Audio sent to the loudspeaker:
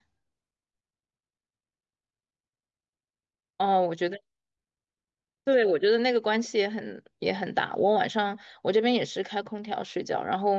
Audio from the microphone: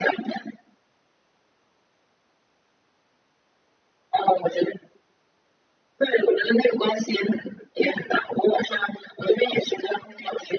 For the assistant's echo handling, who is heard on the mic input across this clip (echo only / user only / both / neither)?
echo only